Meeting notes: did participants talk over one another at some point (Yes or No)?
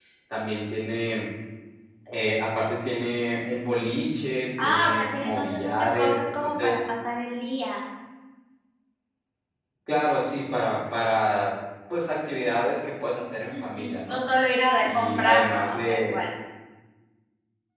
Yes